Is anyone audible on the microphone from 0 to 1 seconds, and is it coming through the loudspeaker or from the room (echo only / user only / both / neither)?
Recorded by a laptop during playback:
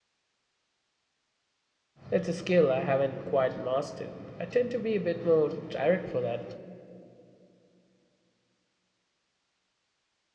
neither